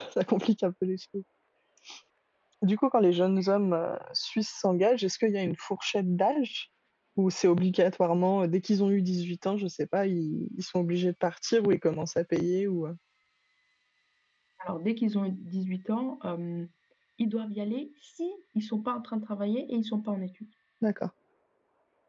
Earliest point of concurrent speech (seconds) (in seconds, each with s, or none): none